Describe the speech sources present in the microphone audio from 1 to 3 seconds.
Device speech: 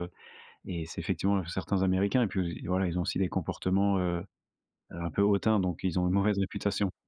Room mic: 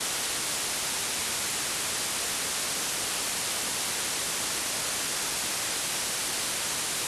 neither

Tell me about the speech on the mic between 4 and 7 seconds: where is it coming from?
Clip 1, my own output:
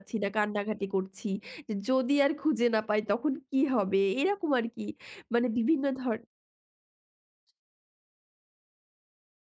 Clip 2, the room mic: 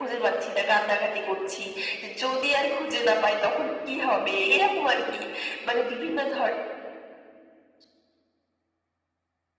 echo only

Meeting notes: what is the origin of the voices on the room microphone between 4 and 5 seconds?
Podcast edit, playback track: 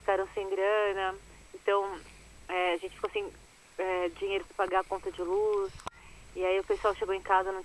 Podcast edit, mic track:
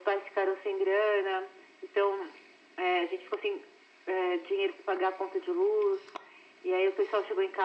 echo only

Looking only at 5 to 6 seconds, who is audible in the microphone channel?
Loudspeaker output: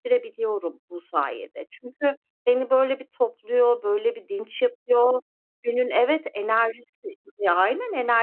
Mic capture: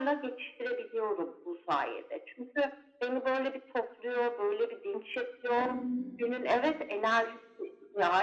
both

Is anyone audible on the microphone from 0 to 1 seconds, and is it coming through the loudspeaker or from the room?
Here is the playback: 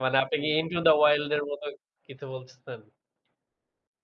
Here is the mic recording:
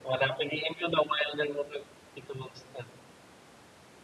echo only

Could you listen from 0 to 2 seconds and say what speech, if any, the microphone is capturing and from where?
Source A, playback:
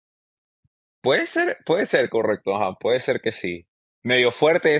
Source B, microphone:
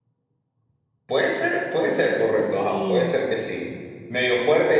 echo only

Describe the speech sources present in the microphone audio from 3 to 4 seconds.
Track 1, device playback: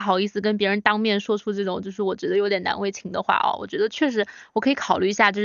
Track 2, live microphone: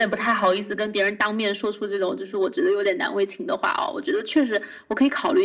echo only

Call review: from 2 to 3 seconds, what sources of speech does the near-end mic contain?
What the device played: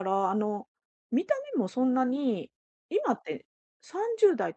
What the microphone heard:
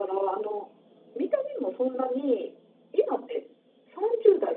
echo only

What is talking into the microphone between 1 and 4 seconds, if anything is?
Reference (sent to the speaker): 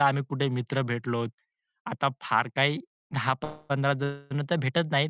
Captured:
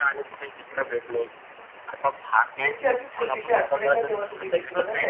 both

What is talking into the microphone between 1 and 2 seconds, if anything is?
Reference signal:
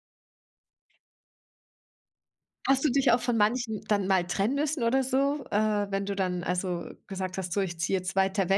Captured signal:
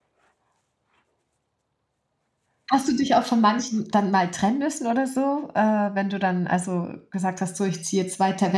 neither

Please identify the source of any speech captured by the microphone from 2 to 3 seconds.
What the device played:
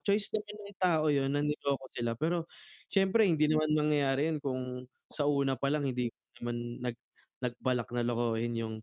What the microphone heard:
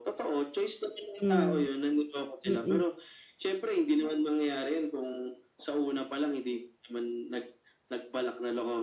both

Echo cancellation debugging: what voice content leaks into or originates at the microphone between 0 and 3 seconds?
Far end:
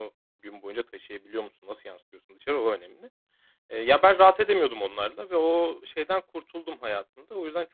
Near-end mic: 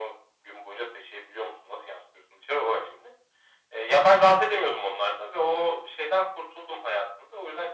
echo only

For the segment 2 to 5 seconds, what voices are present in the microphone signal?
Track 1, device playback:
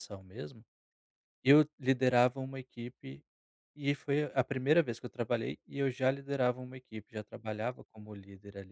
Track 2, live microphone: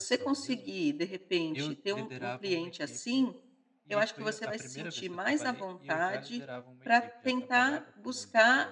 both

